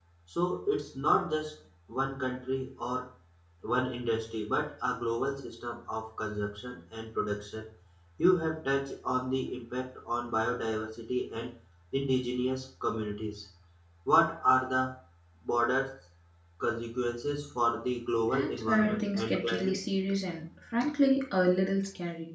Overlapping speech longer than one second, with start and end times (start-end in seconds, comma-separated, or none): 18.3-19.8